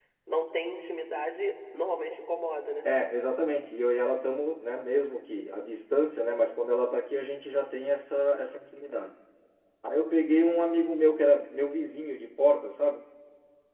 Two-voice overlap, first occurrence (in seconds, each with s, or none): none